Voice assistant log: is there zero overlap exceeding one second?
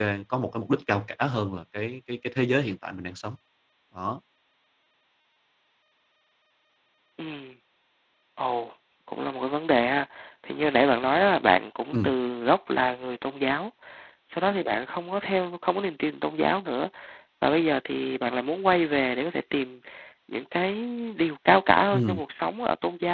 Yes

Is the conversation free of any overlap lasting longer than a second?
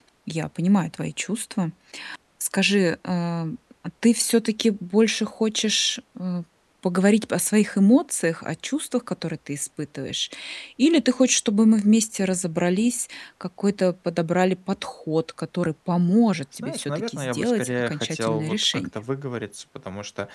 No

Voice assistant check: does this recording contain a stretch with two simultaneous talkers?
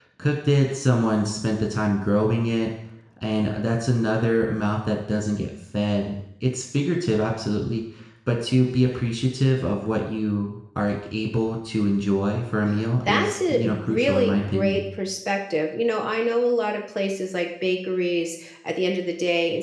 Yes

